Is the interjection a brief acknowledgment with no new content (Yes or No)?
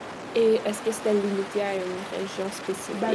No